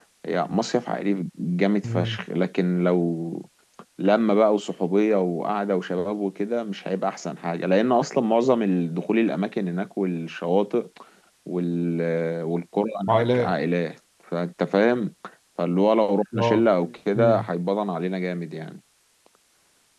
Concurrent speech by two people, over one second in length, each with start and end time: none

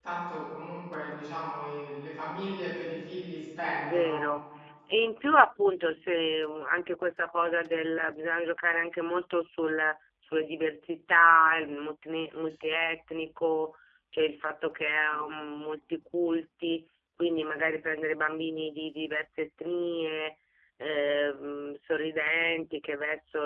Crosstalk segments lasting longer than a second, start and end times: none

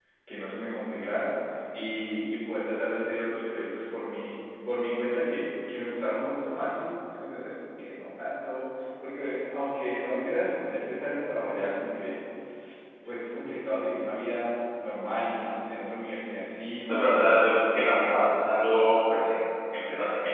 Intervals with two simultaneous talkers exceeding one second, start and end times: 16.9-18.3

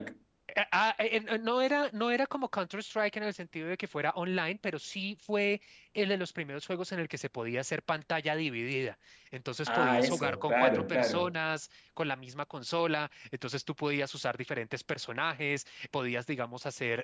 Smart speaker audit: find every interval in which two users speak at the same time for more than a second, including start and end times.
9.7-11.3

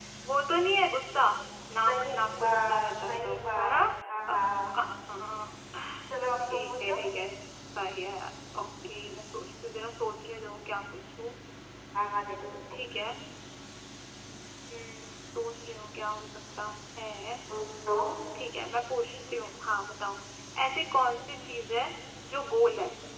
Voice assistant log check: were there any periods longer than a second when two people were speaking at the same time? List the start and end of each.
1.9-3.8

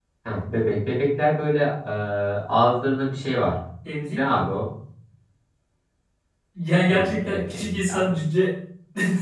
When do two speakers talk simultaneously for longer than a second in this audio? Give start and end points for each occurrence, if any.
6.9-8.1

